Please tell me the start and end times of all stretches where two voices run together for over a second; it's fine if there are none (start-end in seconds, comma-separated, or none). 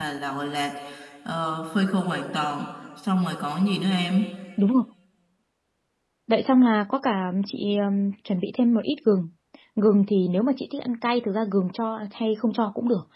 none